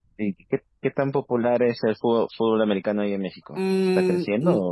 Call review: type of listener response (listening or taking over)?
taking over